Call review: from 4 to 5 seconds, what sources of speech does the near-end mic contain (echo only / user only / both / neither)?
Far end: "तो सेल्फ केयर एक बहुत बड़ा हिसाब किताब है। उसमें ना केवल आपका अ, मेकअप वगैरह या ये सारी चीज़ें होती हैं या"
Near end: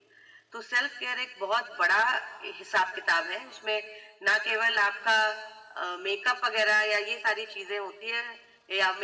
echo only